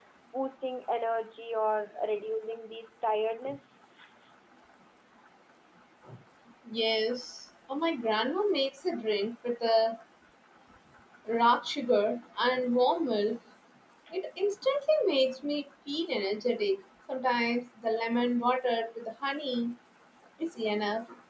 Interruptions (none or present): none